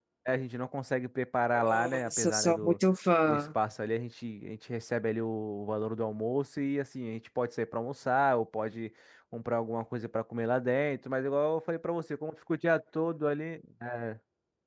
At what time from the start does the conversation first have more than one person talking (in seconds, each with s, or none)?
1.5 s